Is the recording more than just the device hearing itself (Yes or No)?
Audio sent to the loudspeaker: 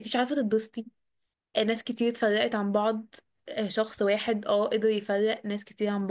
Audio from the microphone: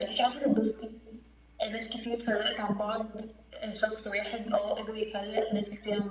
No